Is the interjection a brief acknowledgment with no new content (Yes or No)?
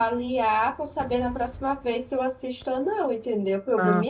Yes